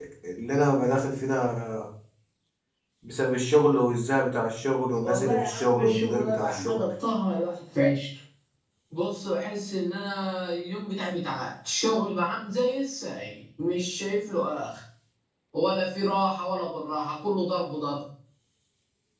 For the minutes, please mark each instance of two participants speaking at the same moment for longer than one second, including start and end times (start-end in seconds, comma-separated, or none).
5.0-6.8